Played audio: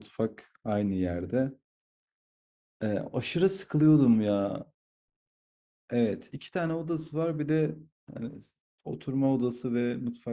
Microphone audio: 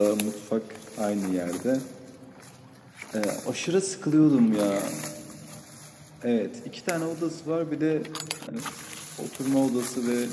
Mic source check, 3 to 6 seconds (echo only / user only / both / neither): echo only